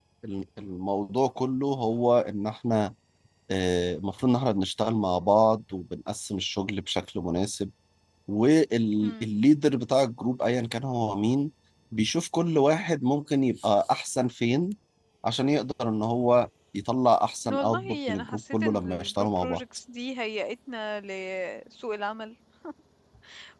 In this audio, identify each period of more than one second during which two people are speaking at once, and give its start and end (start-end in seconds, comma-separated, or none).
17.4-19.6